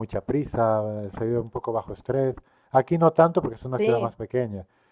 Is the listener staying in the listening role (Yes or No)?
Yes